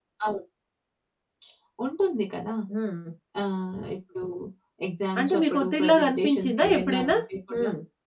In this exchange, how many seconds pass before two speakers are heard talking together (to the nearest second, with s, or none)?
5 s